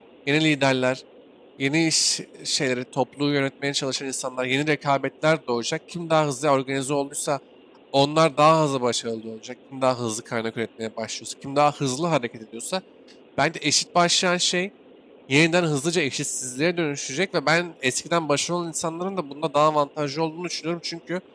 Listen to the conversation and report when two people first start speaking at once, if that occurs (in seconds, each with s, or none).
none